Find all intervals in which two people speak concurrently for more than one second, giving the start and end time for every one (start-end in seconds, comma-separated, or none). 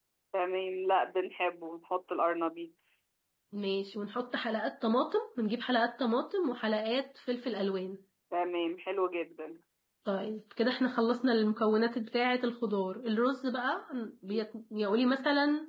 none